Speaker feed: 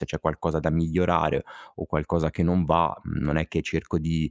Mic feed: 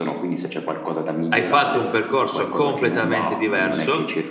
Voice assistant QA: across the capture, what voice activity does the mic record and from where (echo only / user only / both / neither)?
both